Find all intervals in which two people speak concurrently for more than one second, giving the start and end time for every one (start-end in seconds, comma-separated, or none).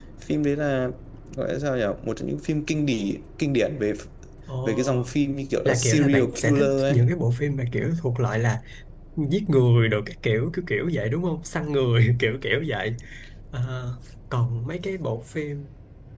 5.6-7.0